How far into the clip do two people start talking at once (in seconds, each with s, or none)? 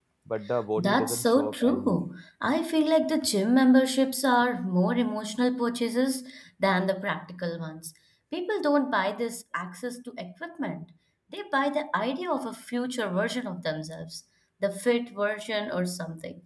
0.8 s